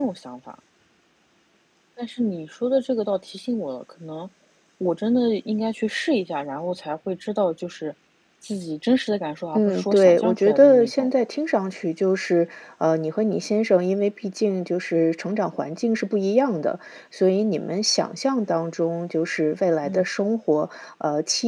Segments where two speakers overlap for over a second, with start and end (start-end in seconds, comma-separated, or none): 9.6-11.1